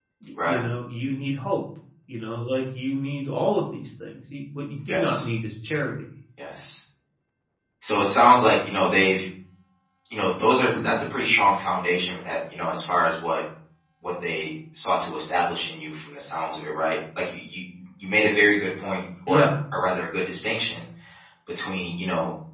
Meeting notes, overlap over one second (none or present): none